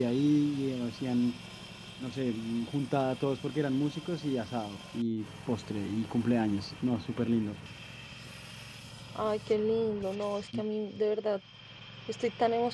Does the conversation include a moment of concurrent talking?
No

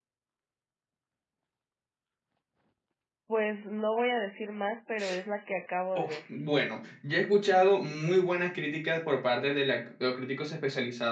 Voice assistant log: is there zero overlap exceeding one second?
Yes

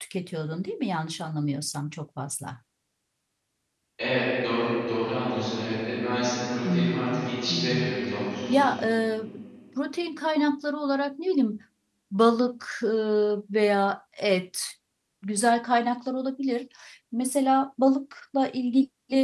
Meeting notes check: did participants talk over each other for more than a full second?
Yes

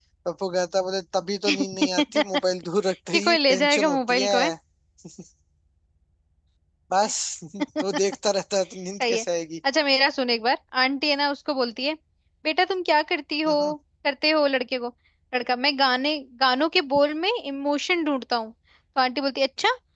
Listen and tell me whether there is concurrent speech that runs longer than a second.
Yes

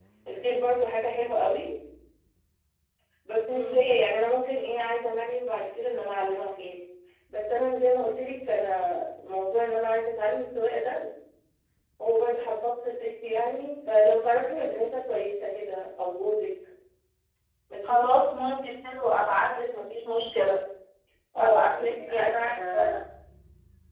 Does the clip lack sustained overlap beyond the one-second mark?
No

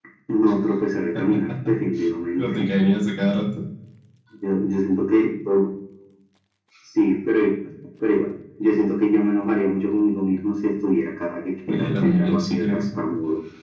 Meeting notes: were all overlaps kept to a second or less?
No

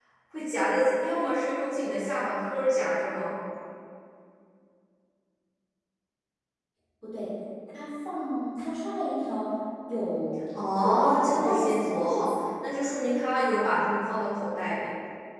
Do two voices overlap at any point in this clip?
Yes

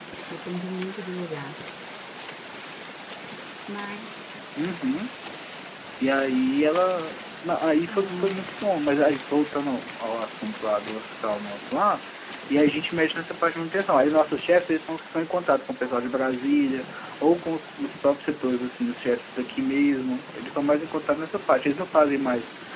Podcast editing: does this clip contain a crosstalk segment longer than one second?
No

